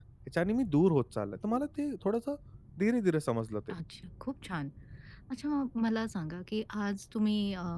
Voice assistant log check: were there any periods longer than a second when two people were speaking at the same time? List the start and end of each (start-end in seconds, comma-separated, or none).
none